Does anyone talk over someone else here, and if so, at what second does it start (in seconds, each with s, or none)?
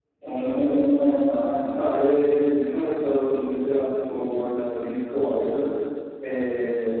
none